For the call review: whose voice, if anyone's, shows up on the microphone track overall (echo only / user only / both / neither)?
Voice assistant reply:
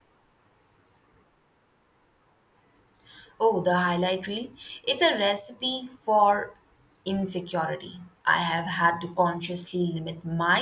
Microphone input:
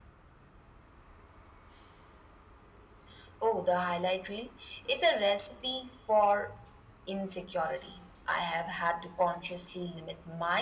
echo only